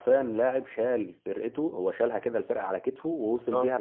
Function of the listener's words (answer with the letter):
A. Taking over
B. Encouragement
B